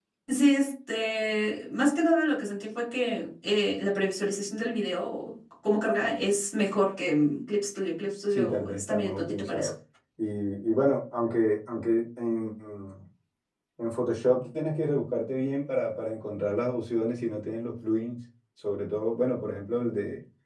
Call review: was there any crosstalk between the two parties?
Yes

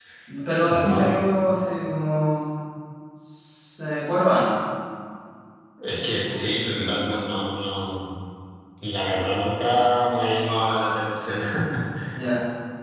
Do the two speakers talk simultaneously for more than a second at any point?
No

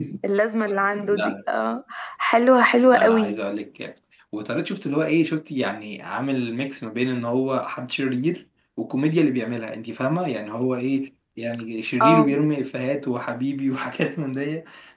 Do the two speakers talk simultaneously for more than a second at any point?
No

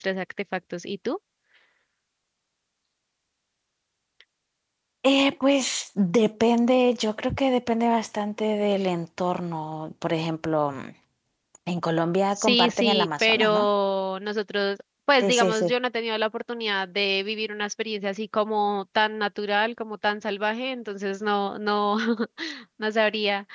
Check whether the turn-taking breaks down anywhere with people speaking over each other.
Yes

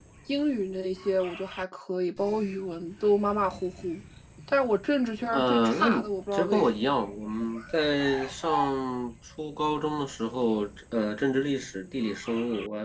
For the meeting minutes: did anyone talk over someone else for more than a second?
Yes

